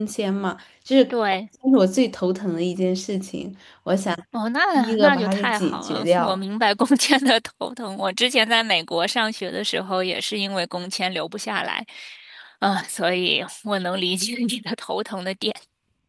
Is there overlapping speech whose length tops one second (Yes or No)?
Yes